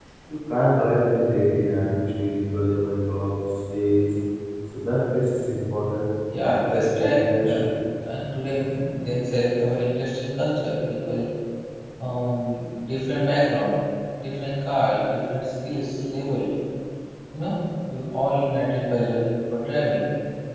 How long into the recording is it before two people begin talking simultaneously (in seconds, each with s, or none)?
6.3 s